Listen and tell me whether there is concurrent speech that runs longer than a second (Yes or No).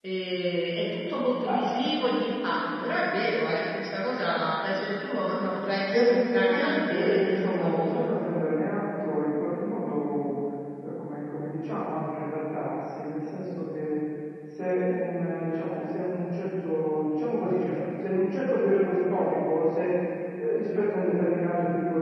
Yes